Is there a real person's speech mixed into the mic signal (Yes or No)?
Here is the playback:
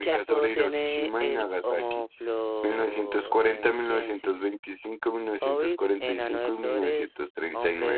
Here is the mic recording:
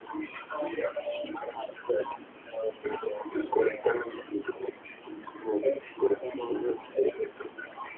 No